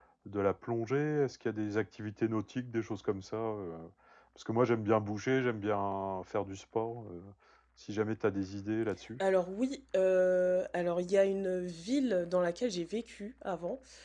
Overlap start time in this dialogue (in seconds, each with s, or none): none